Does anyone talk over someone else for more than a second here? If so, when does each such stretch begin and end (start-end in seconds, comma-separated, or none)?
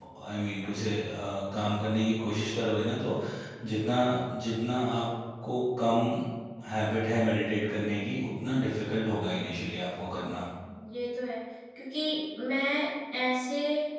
none